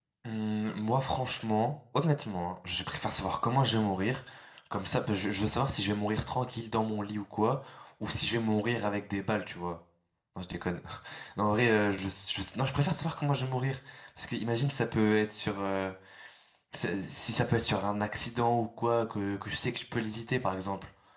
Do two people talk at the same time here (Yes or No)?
No